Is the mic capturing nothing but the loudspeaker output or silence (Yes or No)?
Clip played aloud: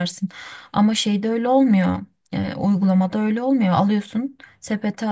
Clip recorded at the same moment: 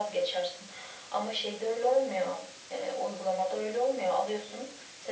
Yes